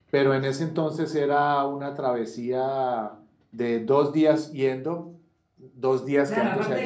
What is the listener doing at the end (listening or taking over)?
taking over